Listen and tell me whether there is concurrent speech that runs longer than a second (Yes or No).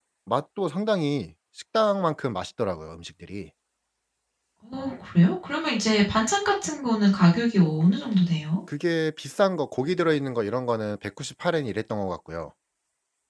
No